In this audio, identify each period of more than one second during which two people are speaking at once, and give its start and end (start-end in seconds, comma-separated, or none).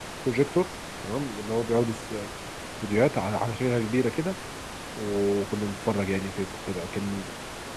none